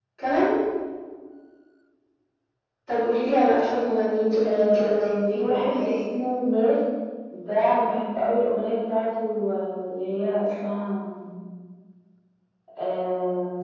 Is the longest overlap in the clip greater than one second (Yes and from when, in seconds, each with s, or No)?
Yes, from 4.4 s